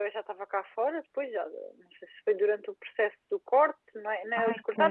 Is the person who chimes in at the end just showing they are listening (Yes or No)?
Yes